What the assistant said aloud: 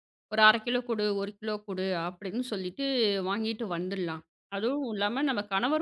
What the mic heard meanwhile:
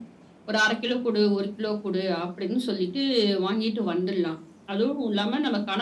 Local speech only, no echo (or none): none